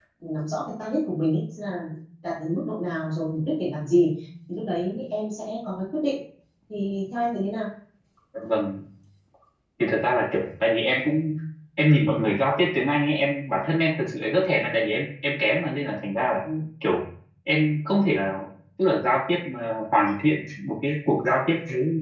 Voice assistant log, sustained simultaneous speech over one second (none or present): none